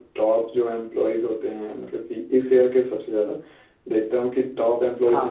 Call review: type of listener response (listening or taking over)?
listening